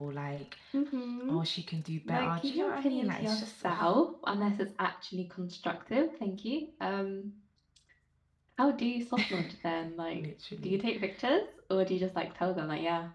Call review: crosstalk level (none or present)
present